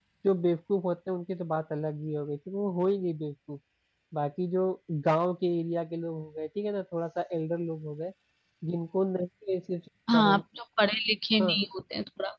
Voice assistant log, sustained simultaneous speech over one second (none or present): none